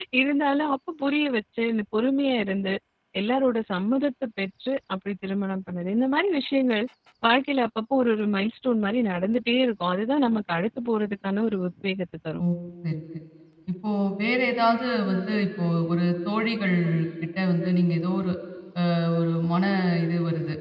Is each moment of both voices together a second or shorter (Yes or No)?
Yes